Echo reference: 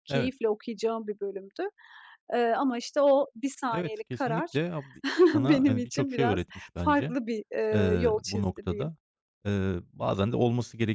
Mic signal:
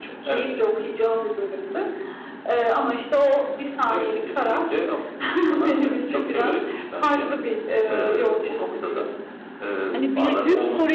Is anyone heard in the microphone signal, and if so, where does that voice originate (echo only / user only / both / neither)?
both